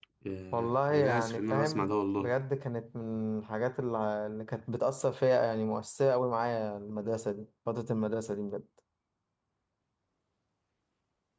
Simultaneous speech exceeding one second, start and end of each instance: 0.5-2.4

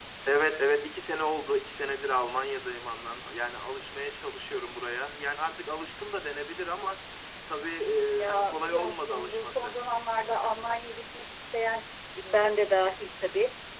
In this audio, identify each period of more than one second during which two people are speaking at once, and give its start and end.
8.2-9.7

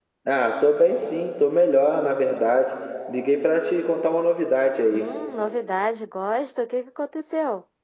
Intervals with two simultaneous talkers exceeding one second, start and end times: none

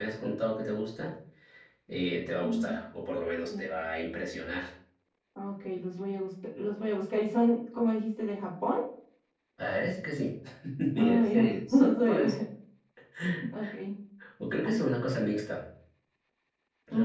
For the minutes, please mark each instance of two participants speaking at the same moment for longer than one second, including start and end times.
10.9-12.4

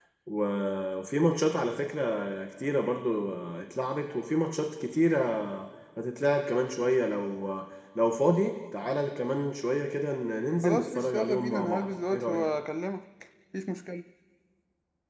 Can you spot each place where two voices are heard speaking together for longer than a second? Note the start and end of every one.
10.6-12.5

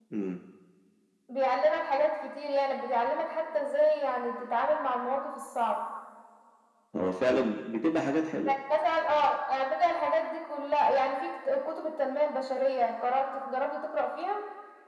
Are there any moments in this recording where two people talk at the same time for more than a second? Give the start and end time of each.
none

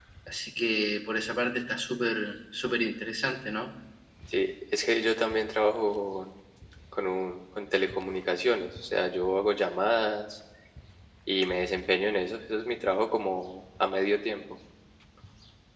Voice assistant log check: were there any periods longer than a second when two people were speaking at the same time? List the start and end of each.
none

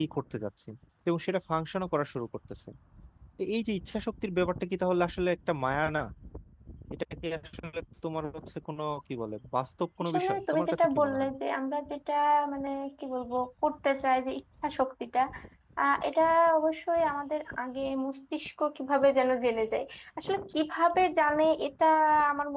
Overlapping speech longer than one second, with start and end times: 10.0-11.3

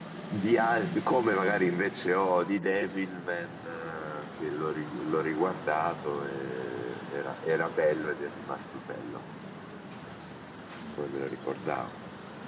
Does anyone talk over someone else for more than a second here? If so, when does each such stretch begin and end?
none

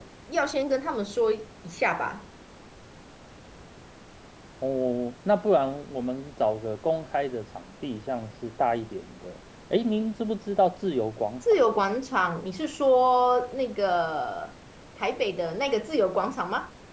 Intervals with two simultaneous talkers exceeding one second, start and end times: none

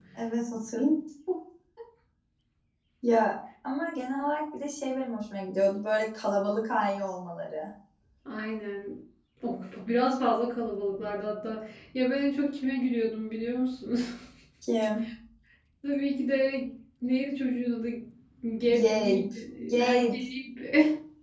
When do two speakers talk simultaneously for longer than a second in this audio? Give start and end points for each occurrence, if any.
18.7-20.2

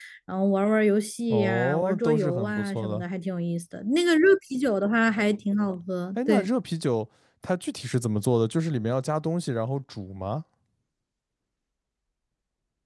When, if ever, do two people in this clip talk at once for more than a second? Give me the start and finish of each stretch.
1.3-3.0

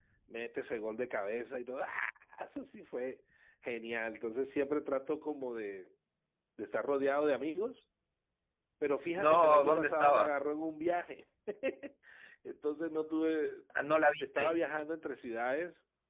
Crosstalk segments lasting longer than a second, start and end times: 9.2-10.4

